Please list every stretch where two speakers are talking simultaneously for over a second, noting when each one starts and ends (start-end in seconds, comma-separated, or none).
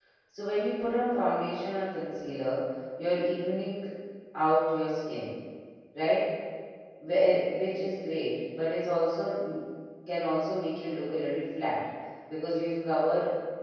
none